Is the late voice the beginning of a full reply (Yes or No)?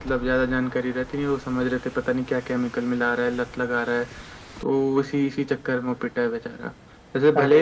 No